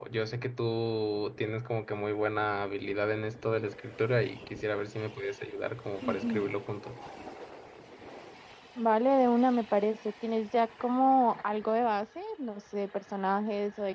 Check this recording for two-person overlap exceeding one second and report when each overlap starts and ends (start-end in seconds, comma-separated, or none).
none